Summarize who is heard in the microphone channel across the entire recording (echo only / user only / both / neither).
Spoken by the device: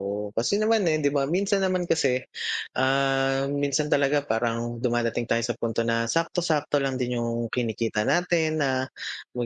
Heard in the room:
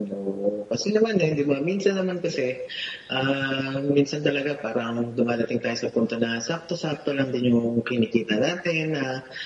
echo only